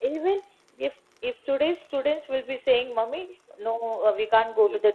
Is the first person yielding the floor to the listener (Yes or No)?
No